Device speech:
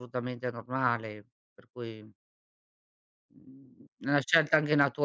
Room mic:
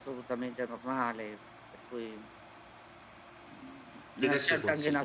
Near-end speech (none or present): present